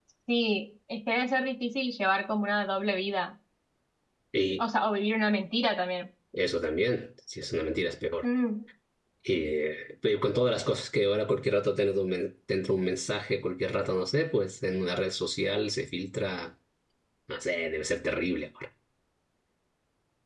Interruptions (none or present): none